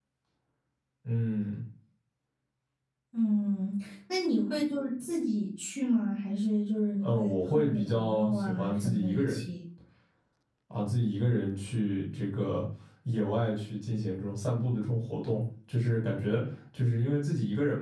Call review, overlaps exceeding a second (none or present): present